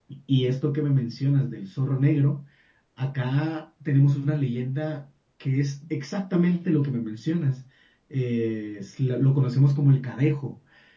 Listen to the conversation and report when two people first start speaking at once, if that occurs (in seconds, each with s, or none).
none